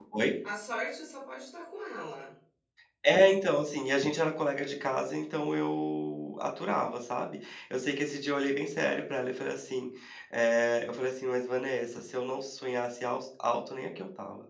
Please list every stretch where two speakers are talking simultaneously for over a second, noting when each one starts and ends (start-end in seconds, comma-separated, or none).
none